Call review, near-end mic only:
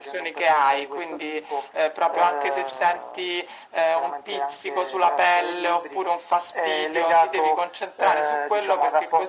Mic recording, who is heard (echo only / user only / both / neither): echo only